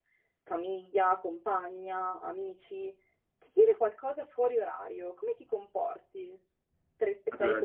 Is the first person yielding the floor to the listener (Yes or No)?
No